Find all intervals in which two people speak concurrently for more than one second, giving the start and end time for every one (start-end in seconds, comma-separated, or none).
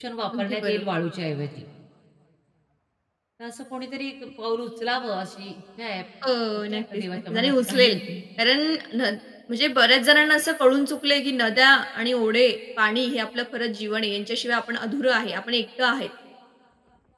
6.5-7.9